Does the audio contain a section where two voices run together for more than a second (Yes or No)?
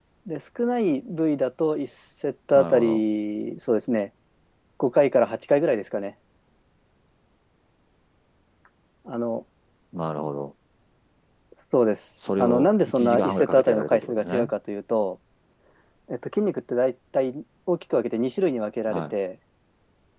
Yes